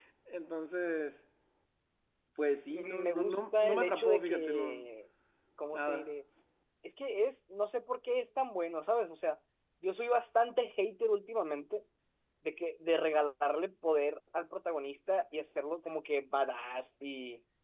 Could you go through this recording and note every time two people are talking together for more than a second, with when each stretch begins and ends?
2.7-4.9

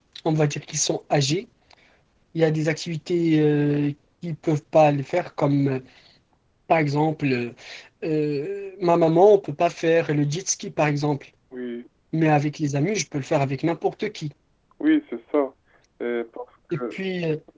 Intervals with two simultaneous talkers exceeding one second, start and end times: none

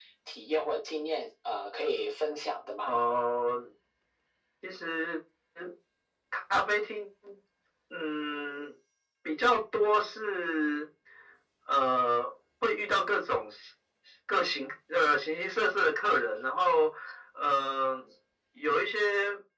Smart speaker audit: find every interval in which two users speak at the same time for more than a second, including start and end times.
none

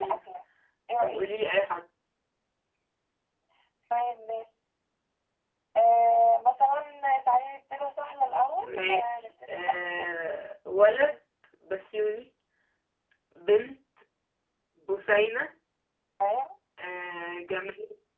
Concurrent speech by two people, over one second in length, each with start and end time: 8.7-10.1

